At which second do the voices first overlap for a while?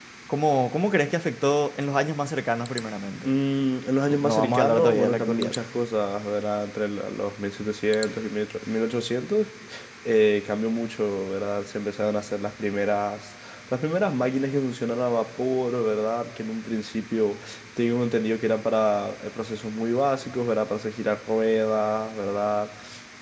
4.0 s

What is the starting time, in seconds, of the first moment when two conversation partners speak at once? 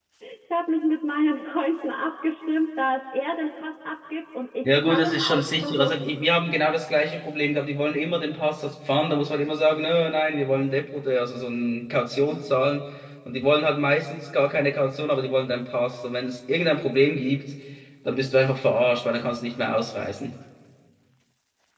4.6 s

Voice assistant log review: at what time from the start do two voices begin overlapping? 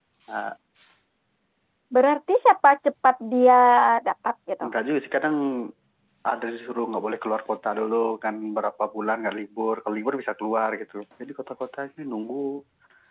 none

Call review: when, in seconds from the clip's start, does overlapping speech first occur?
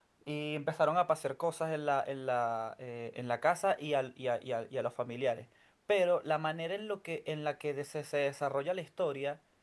none

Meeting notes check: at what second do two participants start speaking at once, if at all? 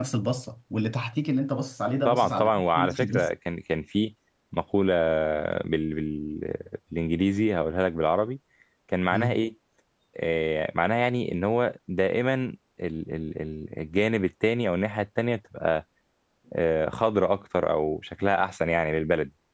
2.0 s

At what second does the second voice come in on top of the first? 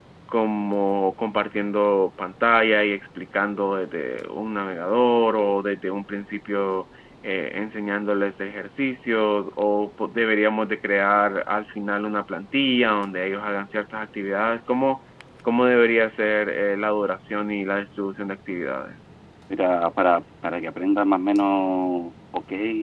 none

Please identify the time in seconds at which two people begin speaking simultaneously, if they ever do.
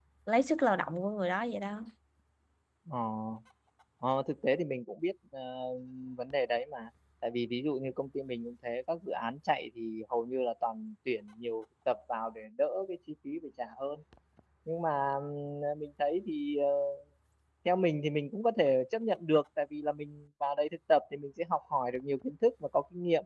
none

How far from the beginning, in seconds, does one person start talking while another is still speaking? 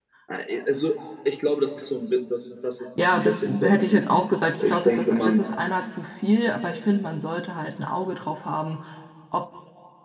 3.0 s

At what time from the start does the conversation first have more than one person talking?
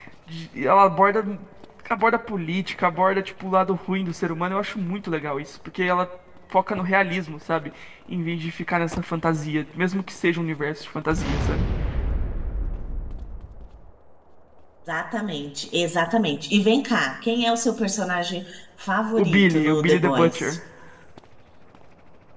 19.2 s

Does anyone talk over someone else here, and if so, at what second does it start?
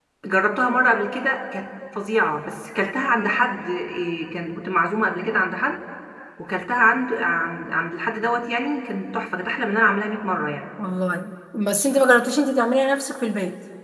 none

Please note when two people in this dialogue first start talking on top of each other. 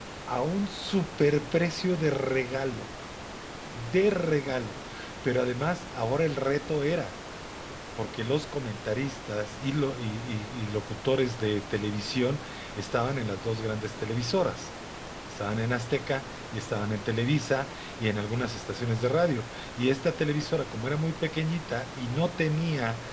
none

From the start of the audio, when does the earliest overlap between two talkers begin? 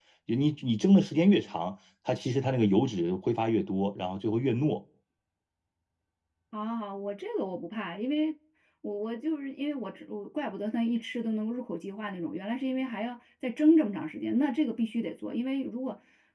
none

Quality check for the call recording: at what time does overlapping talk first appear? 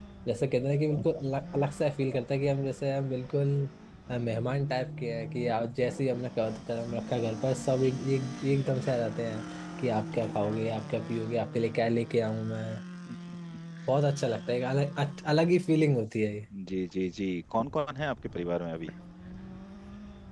none

